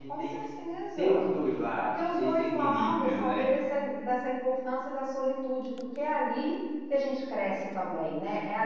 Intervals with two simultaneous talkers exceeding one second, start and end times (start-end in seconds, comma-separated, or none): 1.9-3.5